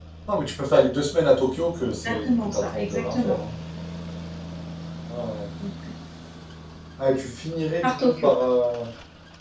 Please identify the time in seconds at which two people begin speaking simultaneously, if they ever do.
2.0 s

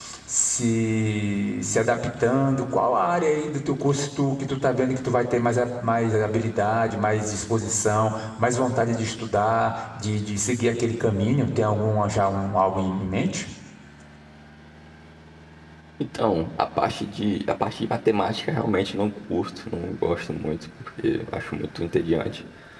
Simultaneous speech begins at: none

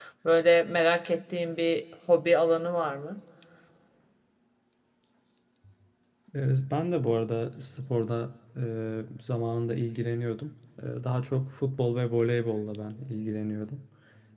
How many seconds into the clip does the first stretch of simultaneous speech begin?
none

